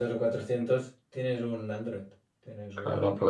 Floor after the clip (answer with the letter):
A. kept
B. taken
B